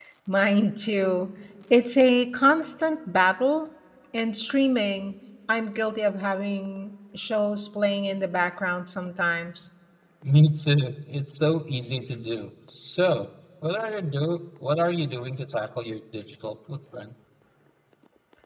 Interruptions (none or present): none